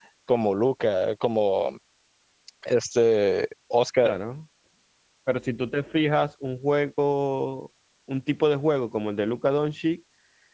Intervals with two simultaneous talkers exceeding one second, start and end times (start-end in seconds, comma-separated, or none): none